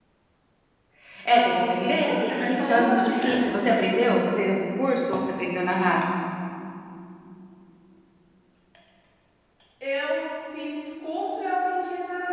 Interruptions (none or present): present